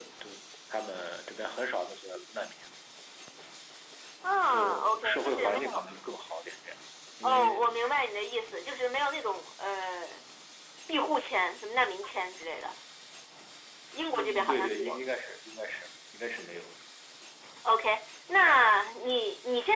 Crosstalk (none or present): present